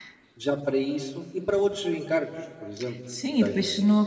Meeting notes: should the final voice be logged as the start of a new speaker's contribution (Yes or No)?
Yes